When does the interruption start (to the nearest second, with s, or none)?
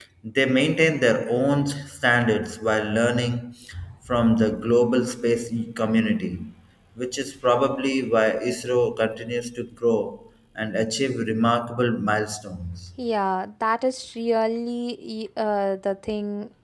none